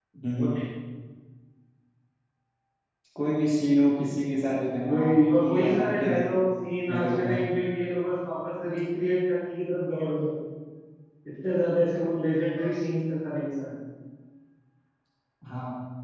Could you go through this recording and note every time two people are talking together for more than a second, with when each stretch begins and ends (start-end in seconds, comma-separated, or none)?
4.8-6.2